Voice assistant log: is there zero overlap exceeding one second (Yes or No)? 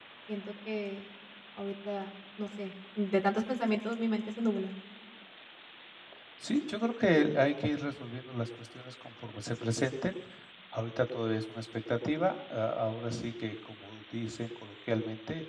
Yes